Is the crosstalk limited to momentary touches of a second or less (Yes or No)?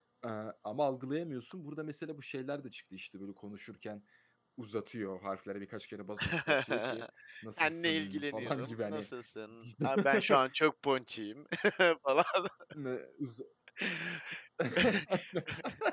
No